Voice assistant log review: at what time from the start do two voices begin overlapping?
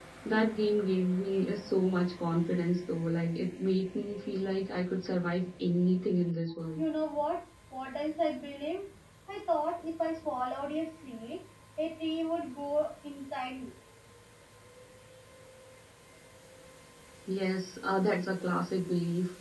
none

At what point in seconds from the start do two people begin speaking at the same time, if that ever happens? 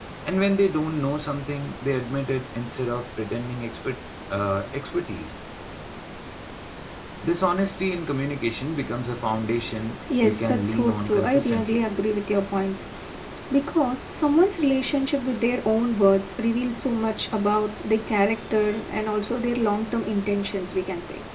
10.1 s

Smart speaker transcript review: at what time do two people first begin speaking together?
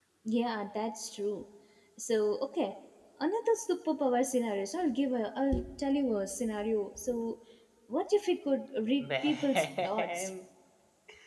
9.0 s

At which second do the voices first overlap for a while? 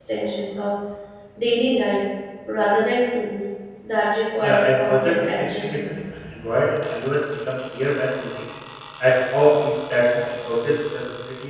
4.4 s

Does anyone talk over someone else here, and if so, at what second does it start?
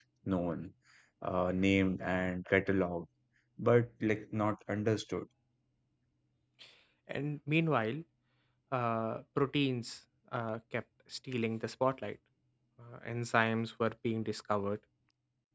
none

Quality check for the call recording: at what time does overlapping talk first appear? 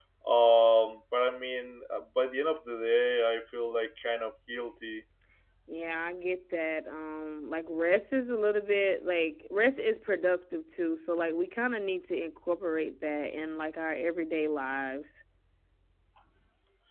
none

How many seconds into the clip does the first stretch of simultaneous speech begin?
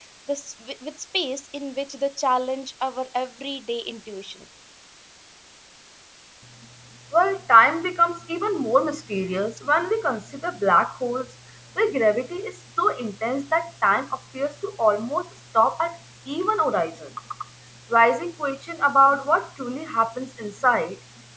none

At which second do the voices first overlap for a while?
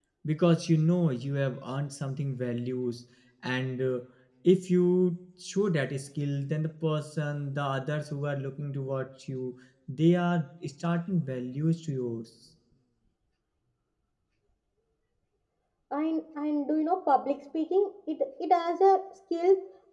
none

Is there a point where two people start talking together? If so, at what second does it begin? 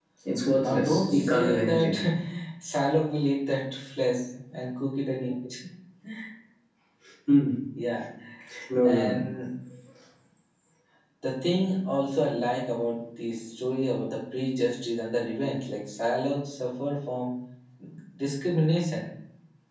0.6 s

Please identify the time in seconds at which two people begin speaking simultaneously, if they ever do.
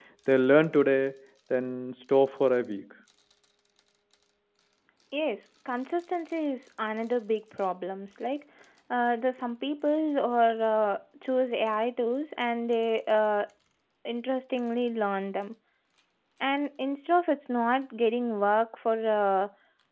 none

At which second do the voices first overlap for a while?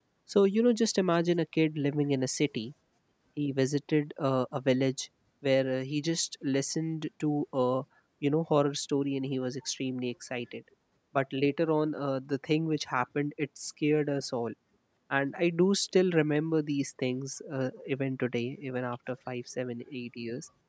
none

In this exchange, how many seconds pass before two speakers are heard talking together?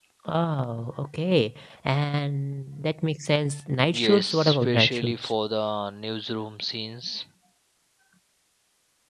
3.9 s

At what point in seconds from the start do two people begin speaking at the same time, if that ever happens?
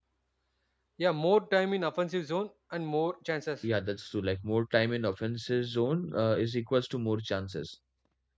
none

